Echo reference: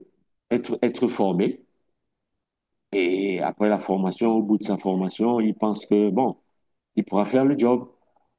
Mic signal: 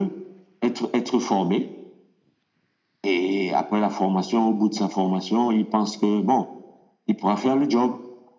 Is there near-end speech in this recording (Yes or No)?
No